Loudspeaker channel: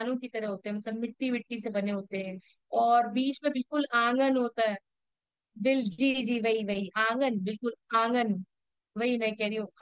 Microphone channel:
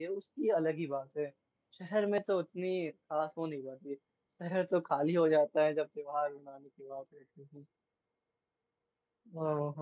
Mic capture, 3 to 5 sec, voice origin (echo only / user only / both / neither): user only